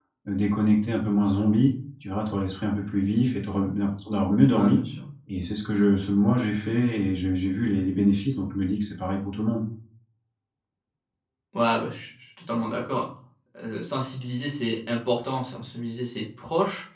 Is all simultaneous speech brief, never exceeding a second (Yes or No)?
Yes